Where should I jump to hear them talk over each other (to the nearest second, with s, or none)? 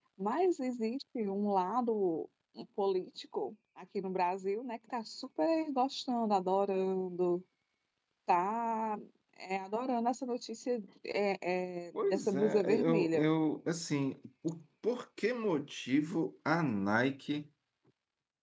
12 s